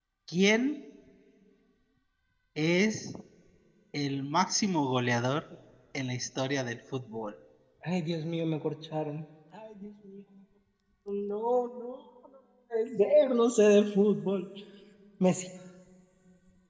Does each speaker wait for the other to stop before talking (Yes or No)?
Yes